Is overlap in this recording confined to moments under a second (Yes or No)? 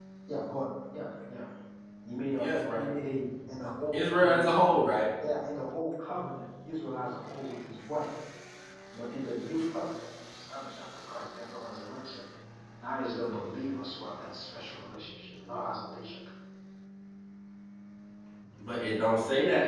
Yes